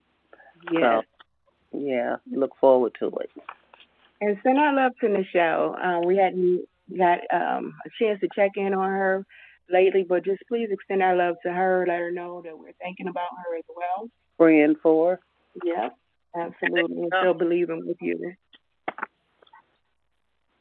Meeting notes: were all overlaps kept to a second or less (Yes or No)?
Yes